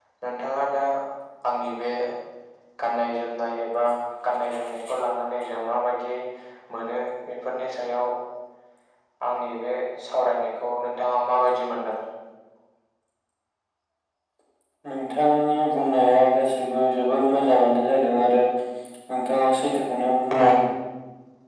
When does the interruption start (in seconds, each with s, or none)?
none